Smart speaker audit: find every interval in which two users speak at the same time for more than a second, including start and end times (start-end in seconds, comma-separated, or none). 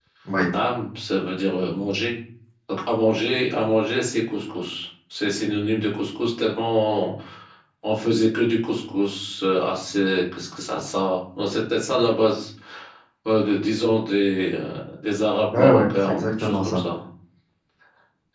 15.6-16.8